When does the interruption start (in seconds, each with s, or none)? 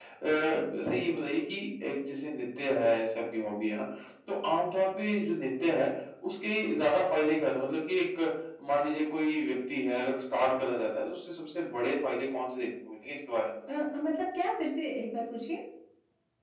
none